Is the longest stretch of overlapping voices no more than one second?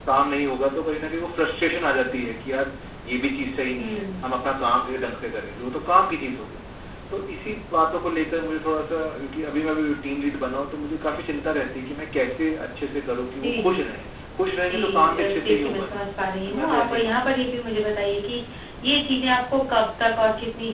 No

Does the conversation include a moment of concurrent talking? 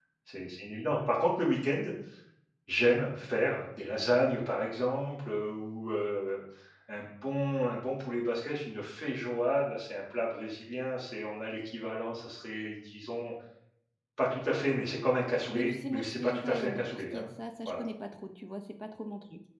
Yes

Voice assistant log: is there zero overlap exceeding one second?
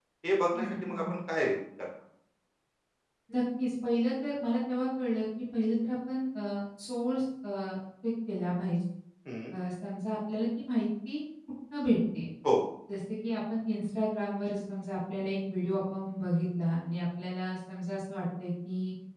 Yes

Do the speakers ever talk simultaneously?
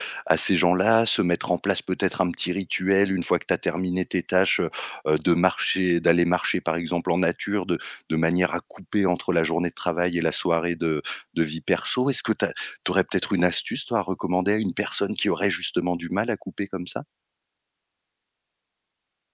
No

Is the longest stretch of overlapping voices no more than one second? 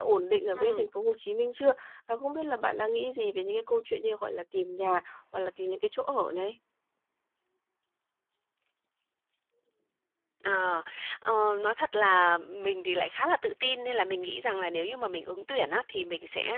Yes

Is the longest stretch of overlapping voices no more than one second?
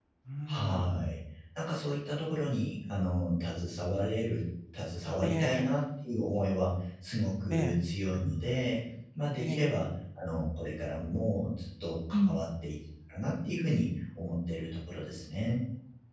Yes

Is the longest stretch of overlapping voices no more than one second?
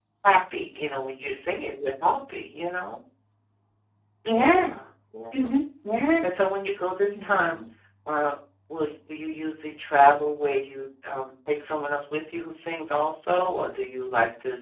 Yes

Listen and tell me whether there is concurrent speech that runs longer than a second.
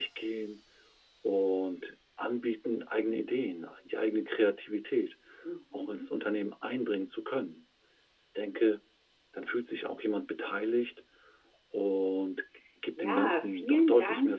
Yes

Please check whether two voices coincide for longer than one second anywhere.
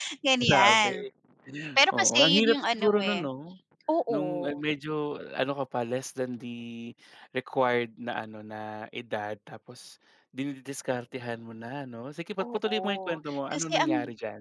Yes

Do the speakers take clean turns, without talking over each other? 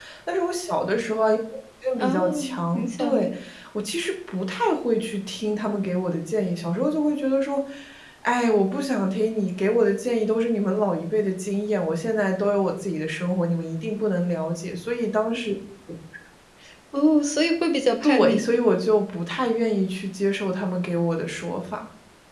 No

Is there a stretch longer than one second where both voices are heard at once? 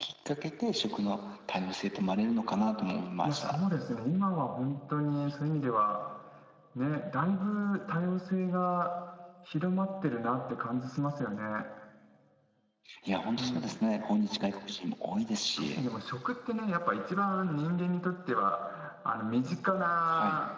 No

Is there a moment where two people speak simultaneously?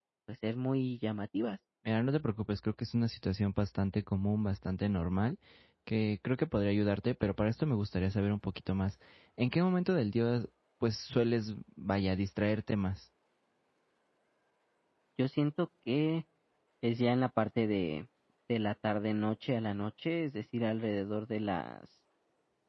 No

